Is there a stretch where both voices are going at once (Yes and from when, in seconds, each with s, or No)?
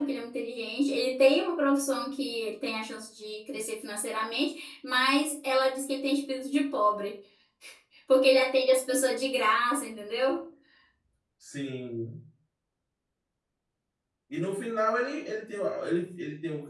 No